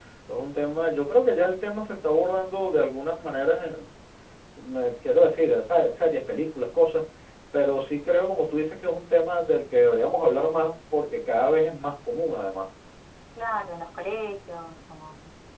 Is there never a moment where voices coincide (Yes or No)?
Yes